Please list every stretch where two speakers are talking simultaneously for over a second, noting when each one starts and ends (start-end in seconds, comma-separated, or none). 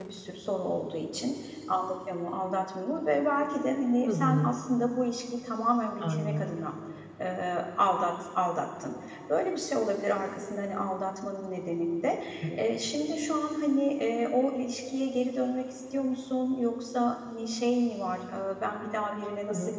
none